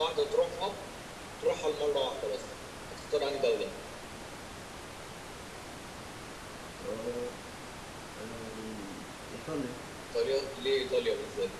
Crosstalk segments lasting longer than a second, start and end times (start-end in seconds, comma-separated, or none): none